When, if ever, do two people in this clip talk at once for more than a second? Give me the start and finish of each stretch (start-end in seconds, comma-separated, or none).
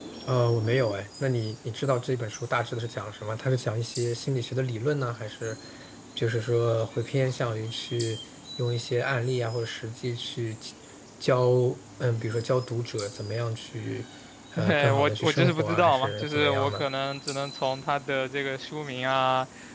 14.7-16.9